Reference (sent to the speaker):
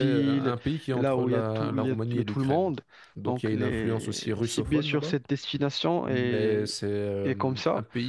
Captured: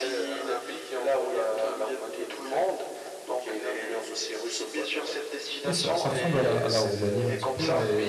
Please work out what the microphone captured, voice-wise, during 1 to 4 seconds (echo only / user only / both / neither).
echo only